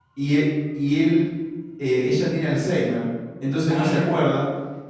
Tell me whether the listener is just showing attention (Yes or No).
Yes